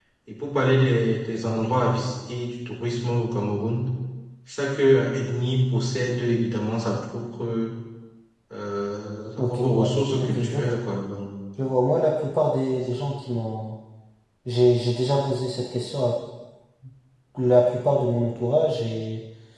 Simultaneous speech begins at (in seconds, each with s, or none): 9.4 s